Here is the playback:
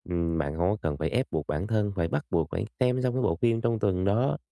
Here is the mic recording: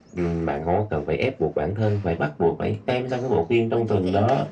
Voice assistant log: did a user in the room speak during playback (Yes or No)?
Yes